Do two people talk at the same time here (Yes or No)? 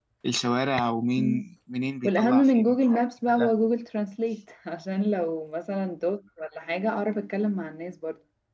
Yes